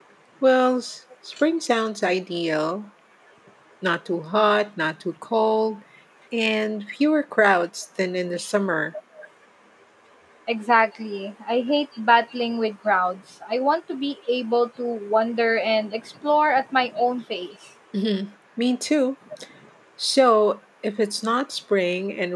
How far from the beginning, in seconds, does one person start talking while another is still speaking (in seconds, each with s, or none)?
none